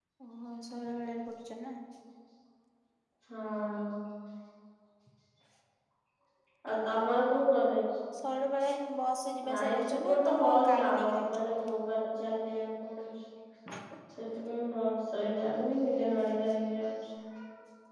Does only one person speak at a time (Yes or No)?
No